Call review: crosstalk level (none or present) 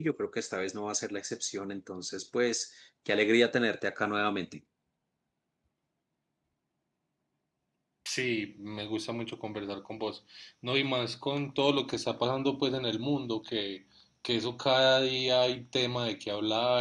none